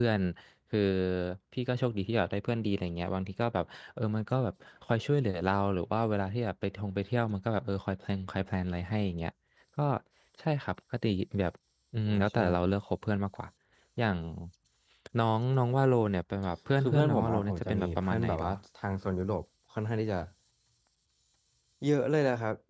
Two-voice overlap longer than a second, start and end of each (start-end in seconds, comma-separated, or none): 16.8-18.5